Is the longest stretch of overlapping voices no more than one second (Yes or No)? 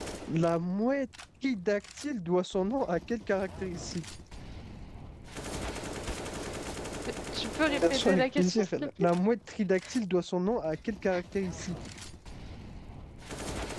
No